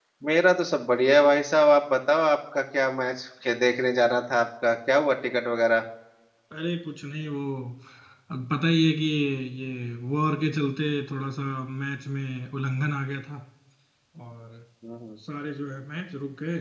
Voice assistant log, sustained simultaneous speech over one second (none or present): none